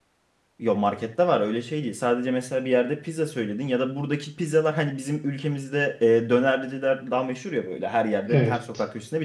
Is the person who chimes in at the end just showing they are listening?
Yes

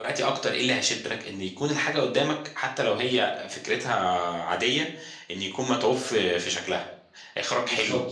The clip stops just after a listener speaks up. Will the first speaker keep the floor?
Yes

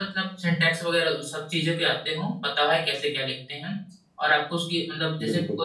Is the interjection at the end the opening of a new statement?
No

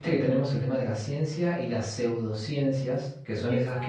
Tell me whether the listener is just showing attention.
Yes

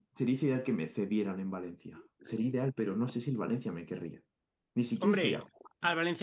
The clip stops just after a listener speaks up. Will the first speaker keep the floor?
No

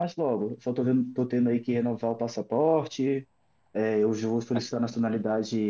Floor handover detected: No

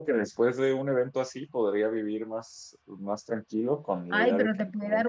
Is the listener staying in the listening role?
No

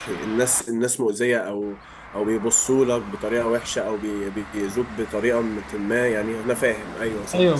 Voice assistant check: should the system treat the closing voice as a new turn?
Yes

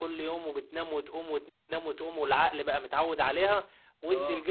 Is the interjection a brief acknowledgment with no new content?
Yes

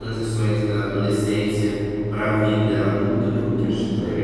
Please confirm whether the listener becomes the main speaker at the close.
No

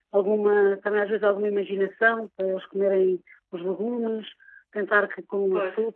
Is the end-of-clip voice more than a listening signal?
No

